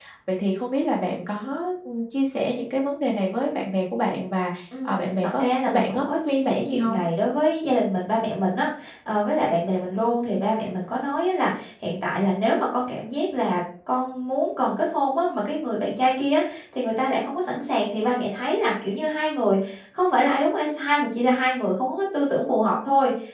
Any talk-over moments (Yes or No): Yes